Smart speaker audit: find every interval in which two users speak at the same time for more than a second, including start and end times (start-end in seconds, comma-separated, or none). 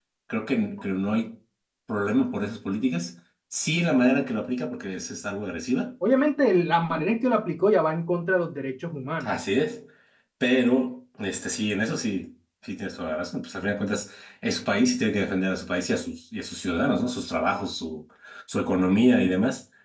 none